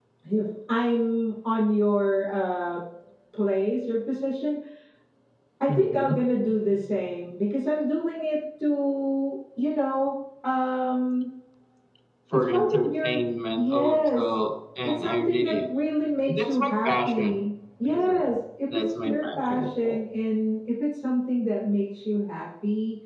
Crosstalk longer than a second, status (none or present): present